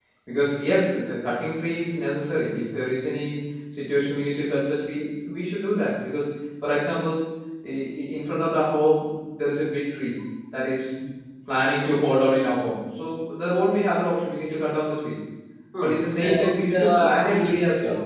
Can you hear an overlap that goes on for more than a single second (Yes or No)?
Yes